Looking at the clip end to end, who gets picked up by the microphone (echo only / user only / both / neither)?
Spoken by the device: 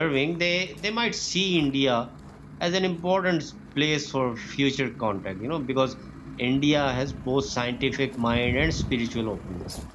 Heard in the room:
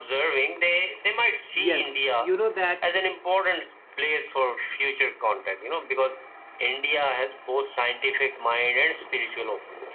both